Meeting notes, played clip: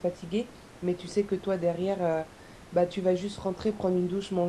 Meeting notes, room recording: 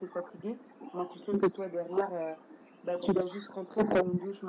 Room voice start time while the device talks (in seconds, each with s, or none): none